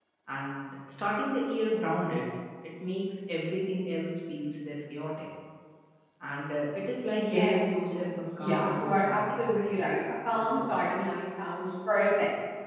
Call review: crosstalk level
present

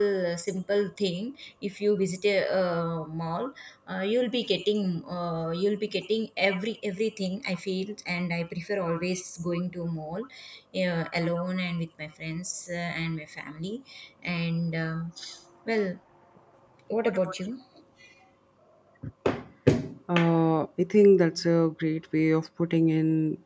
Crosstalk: none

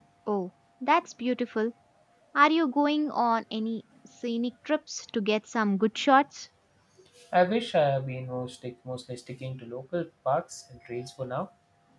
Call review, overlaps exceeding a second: none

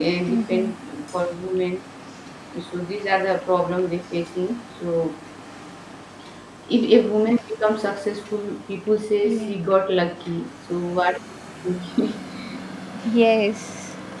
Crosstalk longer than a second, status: none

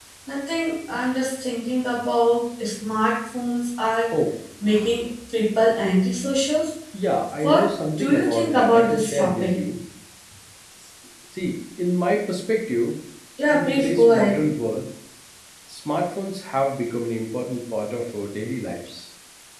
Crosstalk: present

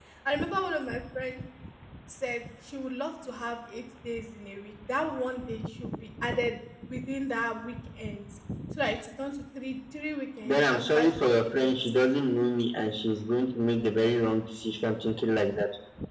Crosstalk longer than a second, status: present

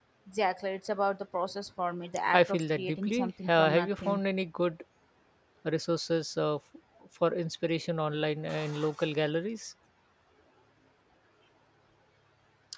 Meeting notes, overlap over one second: present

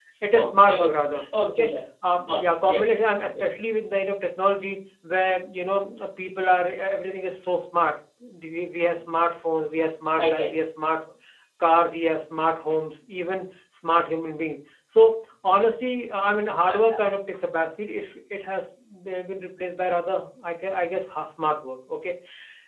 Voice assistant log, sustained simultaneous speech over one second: present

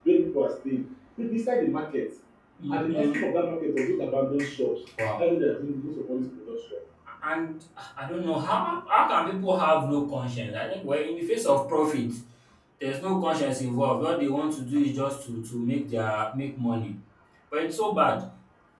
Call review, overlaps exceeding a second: none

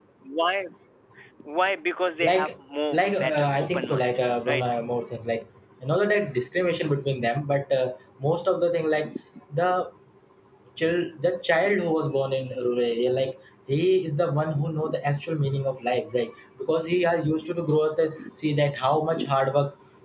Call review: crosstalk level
present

